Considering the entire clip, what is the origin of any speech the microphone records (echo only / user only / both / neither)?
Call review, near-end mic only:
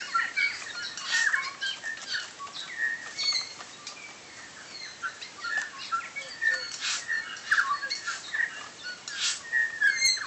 neither